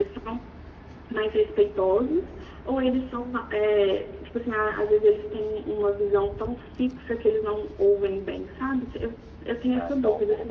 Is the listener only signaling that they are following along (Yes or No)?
No